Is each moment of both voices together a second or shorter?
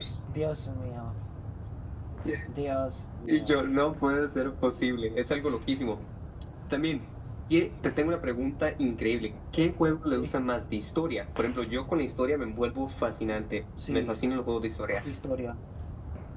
Yes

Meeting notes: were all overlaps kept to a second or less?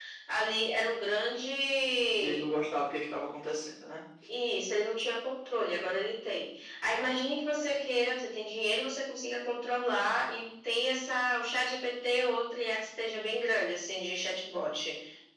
Yes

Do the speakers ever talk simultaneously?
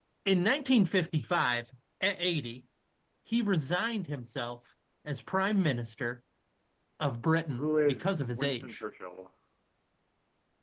Yes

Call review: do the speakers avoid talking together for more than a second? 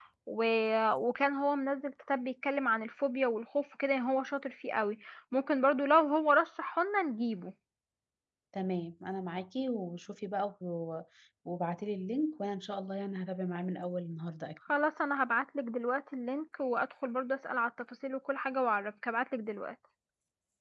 Yes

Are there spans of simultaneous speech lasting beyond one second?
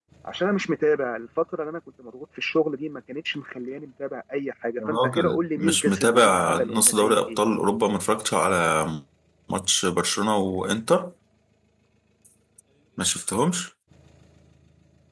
Yes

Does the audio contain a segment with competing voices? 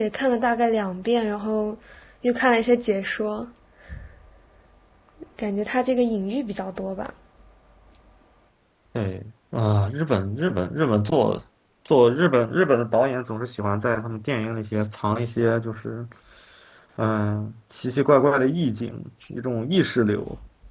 No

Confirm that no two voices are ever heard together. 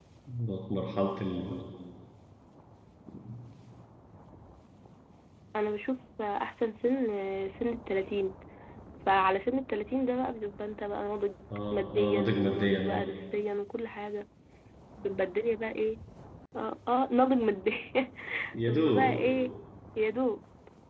No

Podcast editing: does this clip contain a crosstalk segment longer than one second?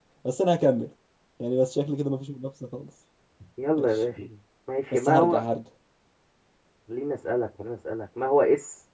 No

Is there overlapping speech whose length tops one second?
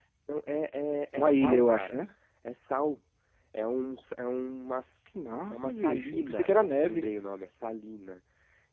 Yes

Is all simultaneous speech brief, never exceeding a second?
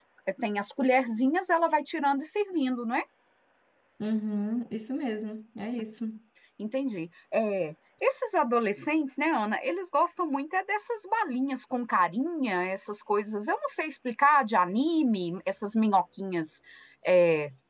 Yes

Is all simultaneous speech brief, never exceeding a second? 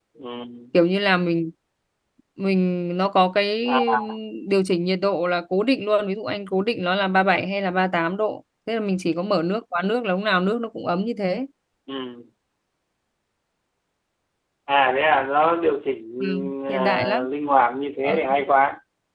Yes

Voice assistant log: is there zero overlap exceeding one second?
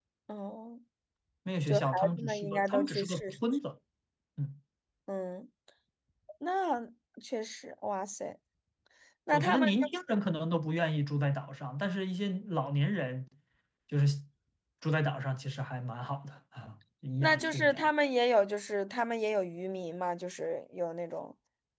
No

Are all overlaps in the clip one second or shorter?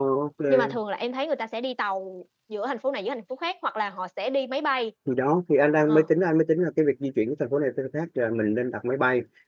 Yes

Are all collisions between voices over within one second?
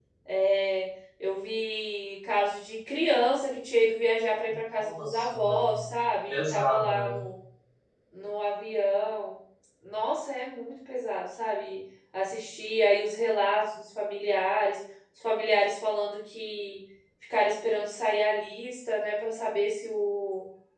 No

